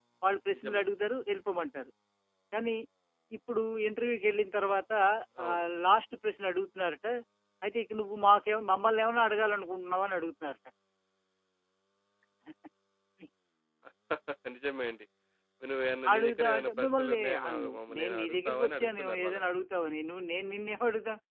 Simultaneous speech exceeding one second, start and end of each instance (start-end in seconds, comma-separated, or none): 16.1-19.4